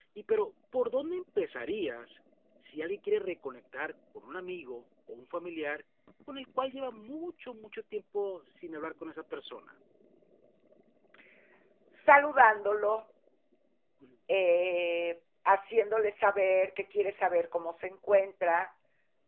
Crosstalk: none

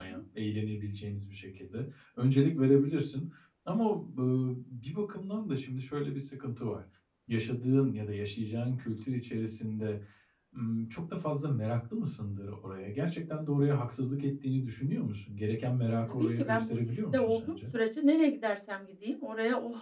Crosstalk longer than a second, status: present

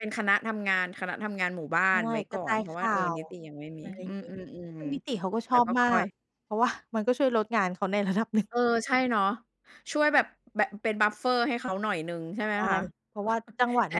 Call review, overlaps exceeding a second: present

